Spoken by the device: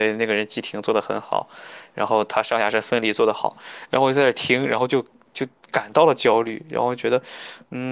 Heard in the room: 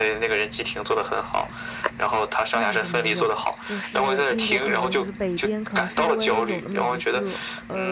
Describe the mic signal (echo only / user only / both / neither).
both